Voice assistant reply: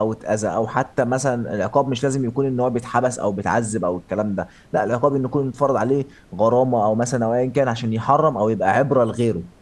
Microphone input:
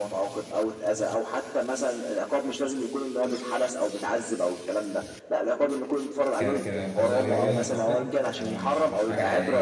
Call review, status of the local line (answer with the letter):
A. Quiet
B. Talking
B